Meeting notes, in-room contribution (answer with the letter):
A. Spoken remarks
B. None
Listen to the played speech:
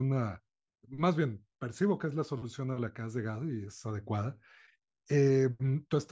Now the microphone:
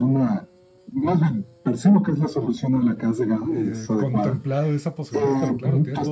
A